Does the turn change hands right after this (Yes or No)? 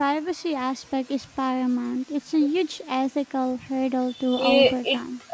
Yes